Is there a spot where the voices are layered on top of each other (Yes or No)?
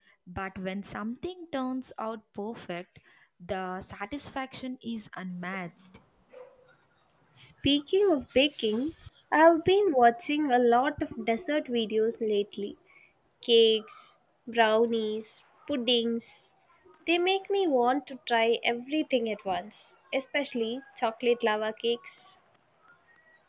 No